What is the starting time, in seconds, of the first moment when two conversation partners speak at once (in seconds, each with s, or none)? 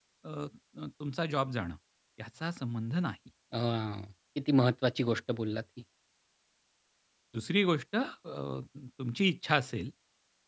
none